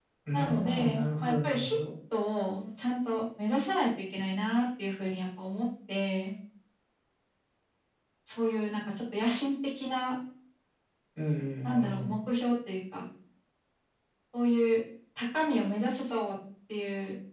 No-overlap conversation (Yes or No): No